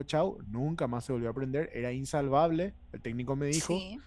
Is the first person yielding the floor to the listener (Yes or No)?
No